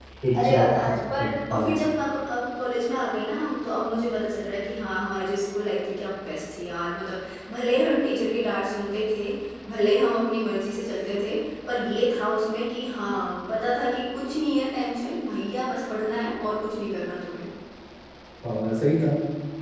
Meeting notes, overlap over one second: present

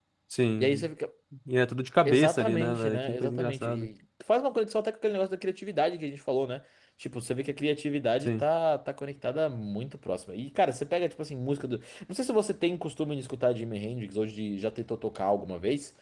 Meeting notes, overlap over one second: present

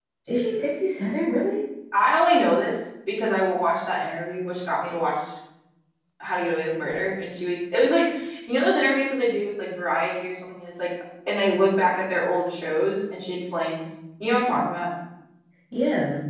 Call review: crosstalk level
none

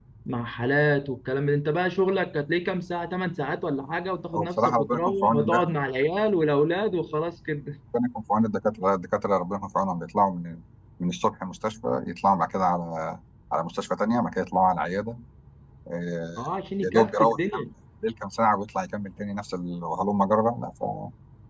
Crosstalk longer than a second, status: present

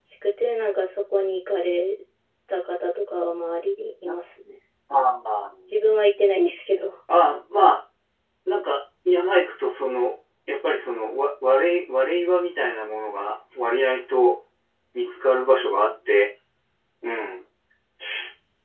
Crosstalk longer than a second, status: none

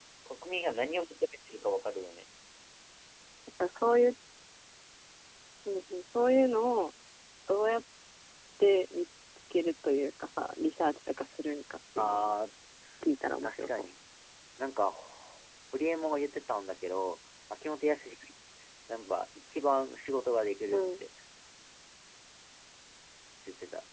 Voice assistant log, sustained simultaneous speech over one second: none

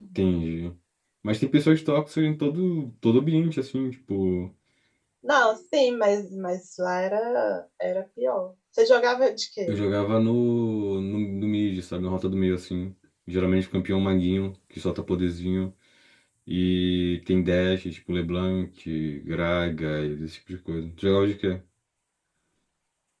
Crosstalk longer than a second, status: none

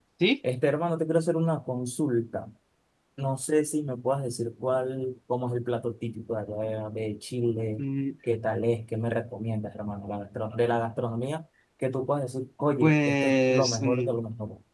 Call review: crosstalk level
present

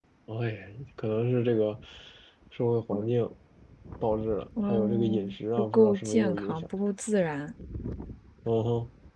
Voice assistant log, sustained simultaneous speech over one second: present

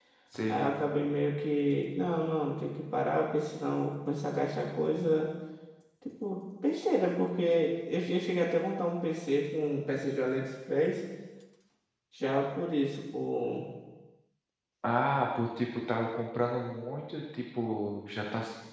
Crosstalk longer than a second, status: none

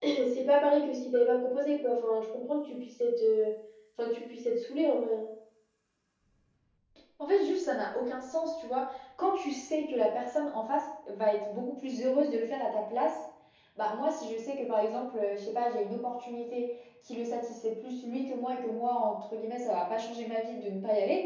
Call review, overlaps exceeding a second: none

